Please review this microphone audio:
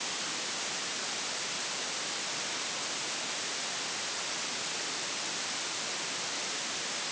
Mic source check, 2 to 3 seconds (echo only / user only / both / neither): neither